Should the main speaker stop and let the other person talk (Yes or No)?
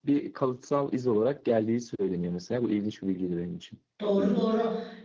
Yes